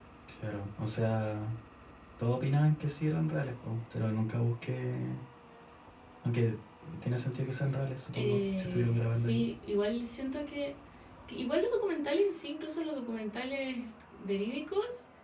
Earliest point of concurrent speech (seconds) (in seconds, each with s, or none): 8.1 s